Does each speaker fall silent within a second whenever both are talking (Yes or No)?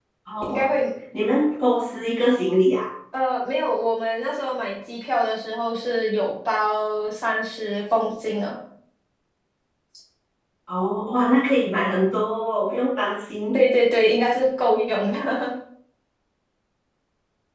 Yes